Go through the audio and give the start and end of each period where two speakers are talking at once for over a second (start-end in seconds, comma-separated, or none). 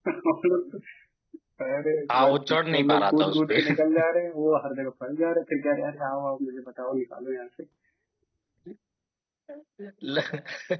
2.1-3.6